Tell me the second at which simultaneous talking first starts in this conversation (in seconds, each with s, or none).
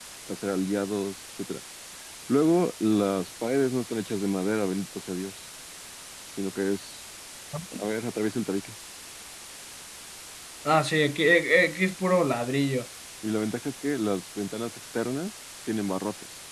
none